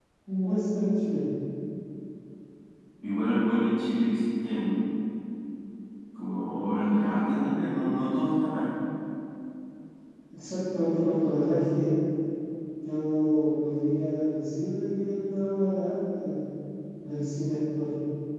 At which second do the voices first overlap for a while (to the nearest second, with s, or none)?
none